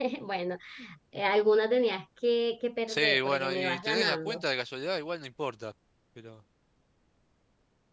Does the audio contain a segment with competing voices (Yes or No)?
Yes